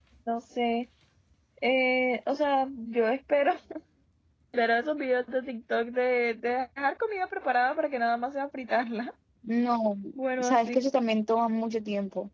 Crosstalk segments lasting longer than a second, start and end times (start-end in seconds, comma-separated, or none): none